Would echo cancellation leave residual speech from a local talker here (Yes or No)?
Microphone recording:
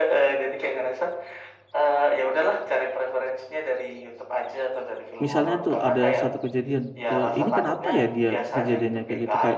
Yes